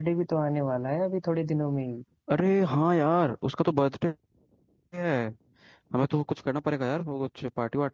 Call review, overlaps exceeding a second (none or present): none